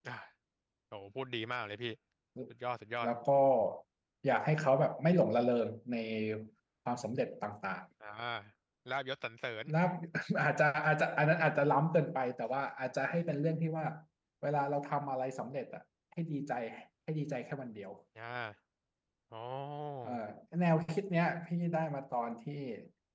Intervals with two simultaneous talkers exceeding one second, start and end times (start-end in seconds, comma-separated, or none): none